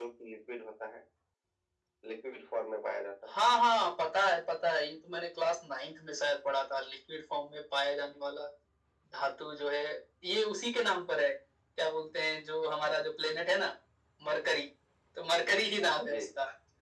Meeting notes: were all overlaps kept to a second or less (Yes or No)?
Yes